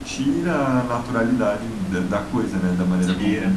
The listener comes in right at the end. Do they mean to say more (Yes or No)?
Yes